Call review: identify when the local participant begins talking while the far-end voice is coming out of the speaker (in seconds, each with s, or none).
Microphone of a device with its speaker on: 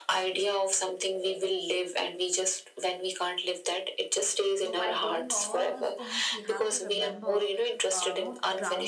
4.6 s